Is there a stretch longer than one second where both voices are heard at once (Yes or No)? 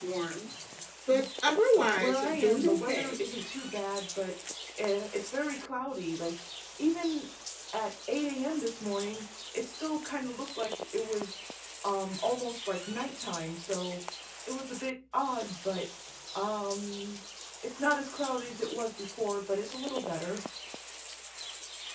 Yes